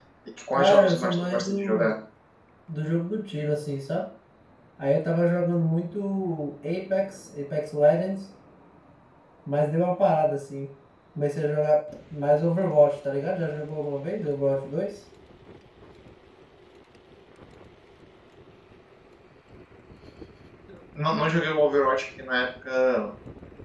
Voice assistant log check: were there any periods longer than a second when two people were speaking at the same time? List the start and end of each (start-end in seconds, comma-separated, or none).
0.6-1.9